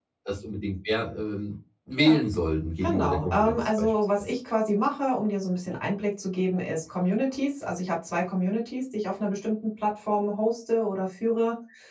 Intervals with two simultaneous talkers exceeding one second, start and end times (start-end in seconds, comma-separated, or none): 2.8-4.3